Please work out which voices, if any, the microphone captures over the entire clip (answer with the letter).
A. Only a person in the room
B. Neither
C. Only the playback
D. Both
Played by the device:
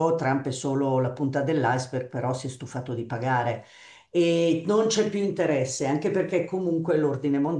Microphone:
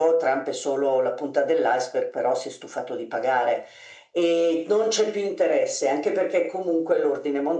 C